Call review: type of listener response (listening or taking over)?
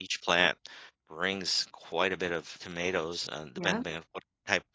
listening